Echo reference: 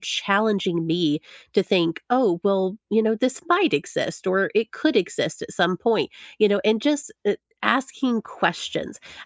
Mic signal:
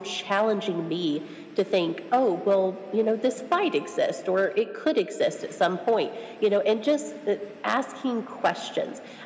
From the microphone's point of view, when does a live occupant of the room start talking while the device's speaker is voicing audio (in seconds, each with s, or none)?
none